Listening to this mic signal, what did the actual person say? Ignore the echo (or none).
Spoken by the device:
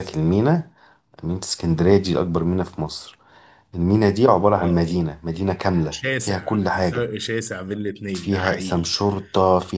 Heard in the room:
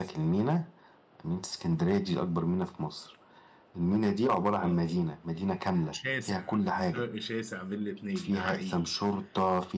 none